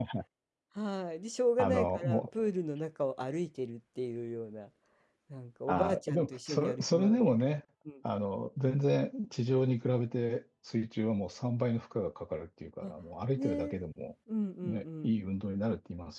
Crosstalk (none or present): present